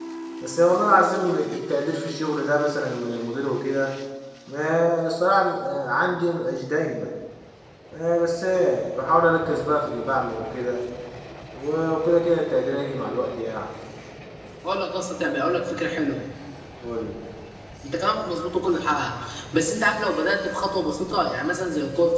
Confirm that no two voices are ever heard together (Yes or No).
Yes